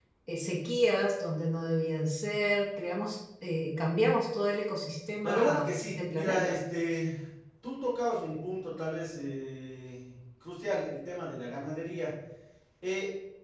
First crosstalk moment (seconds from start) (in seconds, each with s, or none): 5.2 s